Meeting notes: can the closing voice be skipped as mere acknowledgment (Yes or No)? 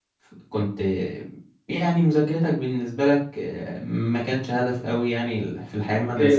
Yes